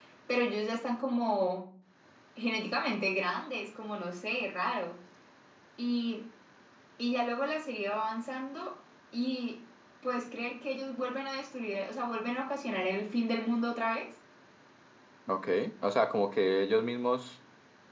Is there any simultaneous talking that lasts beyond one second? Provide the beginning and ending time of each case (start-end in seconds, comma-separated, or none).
none